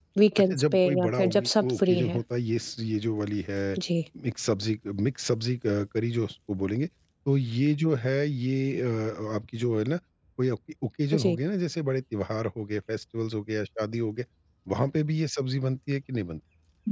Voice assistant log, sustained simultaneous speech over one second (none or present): present